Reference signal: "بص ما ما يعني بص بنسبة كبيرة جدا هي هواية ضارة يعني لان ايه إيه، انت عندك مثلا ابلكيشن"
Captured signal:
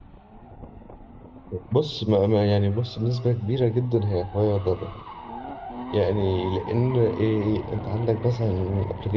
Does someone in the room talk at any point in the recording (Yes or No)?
No